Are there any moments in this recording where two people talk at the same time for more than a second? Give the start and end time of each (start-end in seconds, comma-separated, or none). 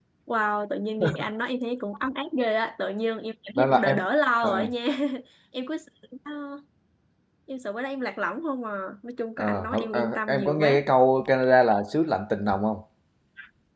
9.4-10.8